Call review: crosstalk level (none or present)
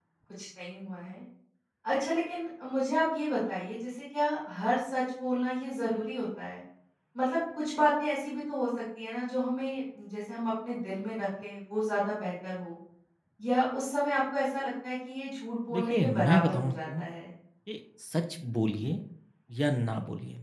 present